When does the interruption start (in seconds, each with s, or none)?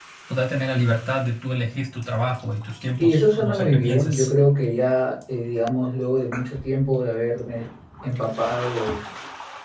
3.0 s